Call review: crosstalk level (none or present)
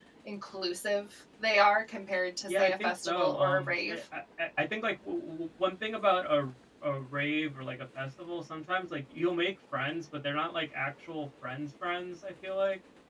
present